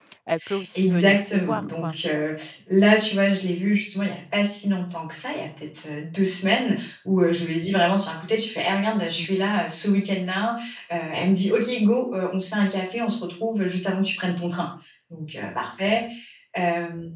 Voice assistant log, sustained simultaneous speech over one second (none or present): present